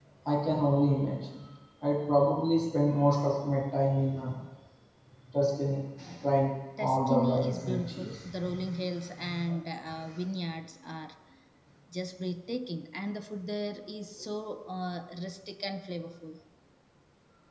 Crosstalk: present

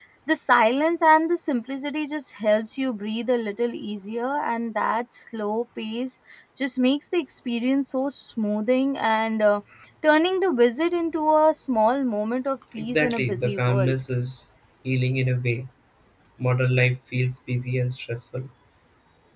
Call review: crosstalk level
present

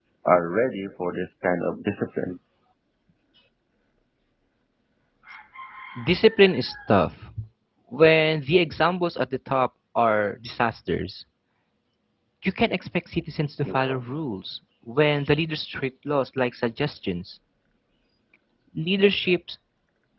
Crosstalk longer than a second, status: none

